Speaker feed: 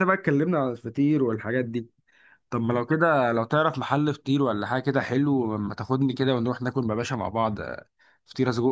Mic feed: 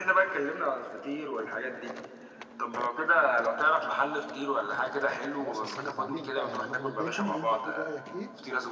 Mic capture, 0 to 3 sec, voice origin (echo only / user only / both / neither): echo only